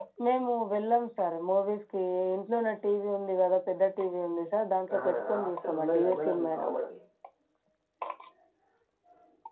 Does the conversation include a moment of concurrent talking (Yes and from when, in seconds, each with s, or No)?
Yes, from 4.9 s